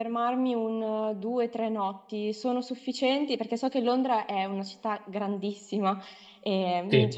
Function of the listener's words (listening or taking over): listening